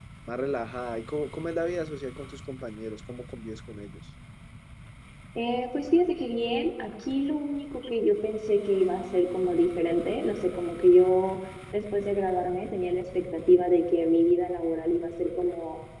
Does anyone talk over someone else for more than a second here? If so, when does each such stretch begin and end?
none

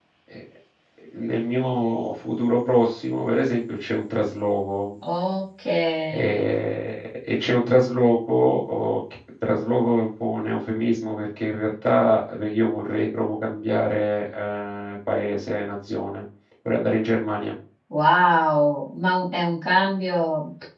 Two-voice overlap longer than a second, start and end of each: none

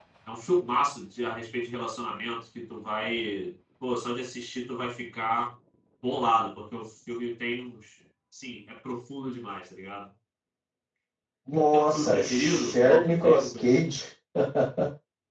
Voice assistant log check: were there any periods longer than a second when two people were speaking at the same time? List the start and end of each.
11.7-13.9

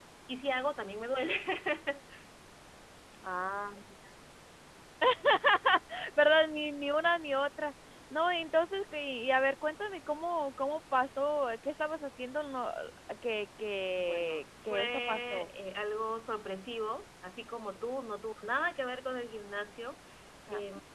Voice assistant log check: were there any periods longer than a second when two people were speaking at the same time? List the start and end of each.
14.0-15.5

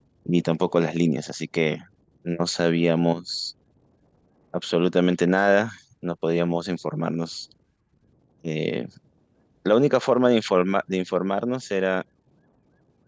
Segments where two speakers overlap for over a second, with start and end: none

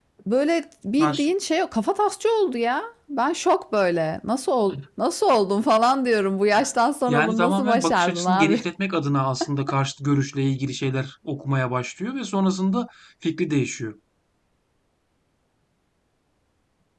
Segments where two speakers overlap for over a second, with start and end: 7.1-8.7

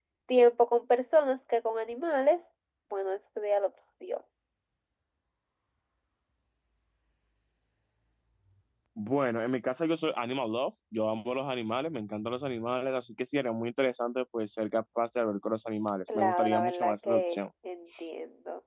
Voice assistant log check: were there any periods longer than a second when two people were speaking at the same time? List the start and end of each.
16.1-17.4

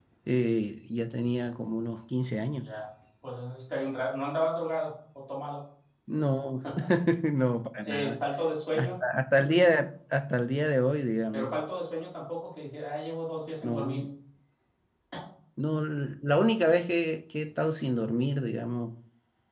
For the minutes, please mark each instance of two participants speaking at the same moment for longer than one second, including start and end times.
none

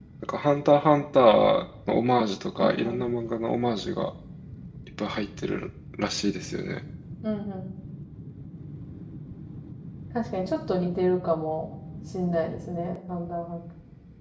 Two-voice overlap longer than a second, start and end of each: none

